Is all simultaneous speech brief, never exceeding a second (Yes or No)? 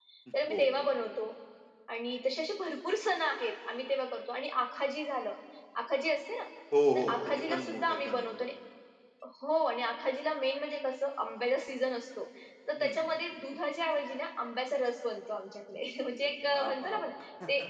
No